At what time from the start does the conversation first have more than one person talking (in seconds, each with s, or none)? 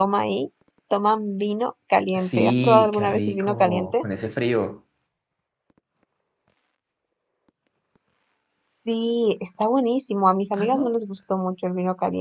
2.1 s